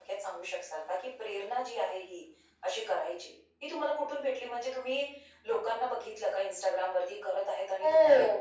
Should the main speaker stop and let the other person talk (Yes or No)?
Yes